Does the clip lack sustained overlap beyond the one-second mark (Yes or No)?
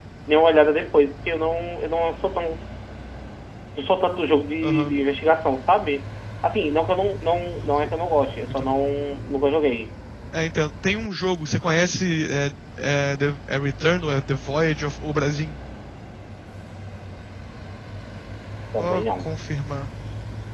Yes